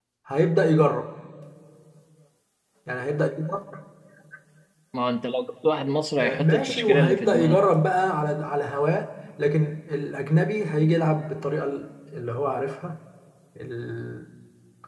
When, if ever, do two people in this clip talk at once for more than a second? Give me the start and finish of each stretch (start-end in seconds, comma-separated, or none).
6.2-7.6